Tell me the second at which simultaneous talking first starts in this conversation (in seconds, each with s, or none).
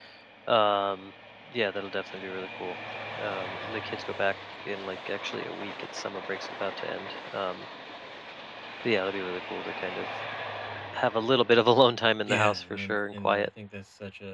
12.3 s